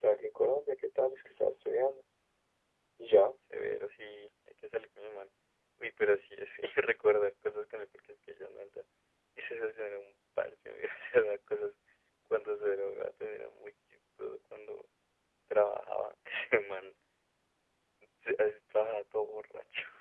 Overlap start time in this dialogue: none

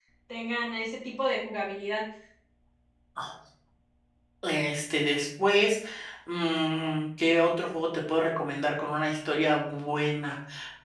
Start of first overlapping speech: none

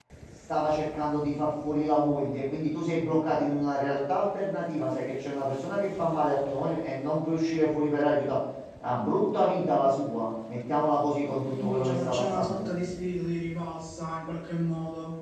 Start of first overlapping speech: 11 s

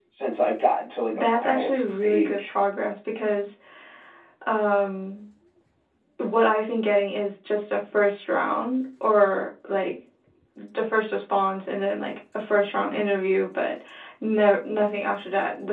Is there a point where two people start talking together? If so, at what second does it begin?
1 s

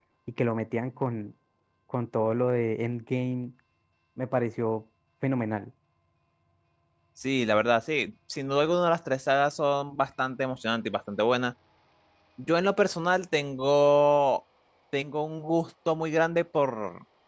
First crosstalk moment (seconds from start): none

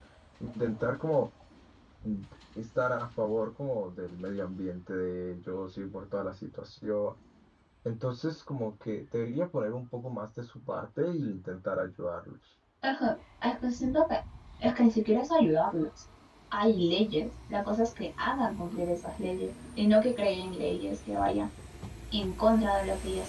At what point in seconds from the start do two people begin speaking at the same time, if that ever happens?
none

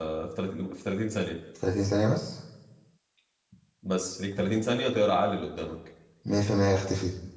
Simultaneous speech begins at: none

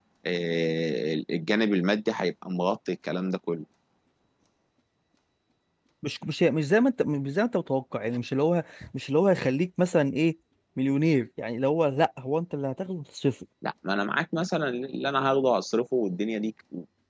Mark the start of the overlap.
none

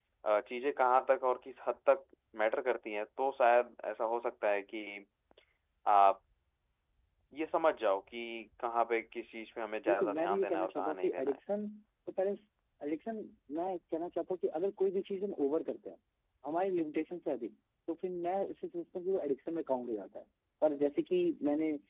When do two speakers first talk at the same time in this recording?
10 s

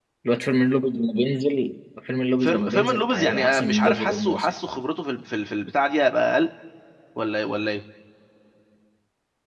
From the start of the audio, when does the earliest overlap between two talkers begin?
2 s

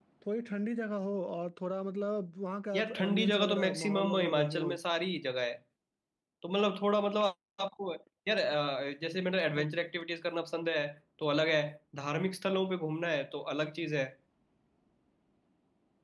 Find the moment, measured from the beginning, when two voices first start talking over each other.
3 s

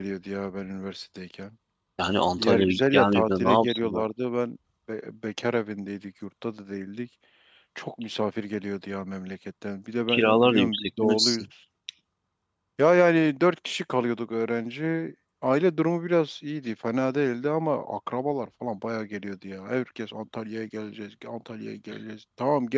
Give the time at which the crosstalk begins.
2 s

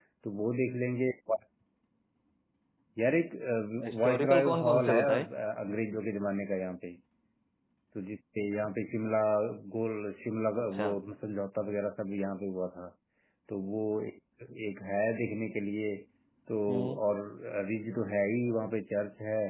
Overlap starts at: 4 s

